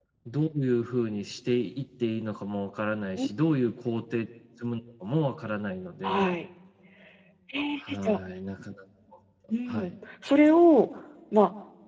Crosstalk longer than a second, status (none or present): none